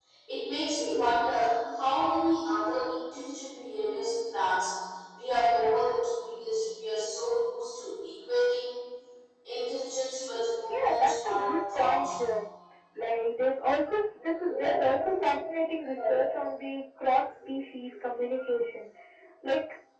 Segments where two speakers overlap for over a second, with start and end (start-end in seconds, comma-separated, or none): 10.7-12.1